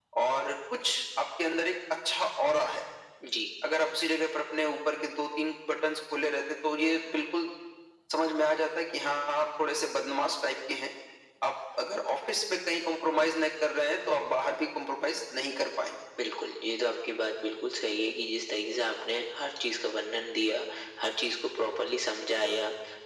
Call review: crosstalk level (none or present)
none